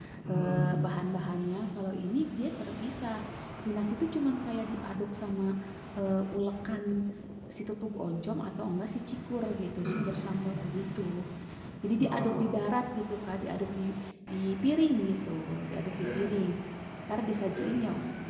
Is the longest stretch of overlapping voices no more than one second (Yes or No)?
Yes